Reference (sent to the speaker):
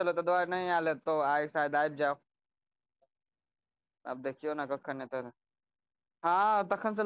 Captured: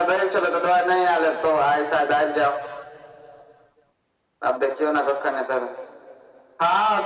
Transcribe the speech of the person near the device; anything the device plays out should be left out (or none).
none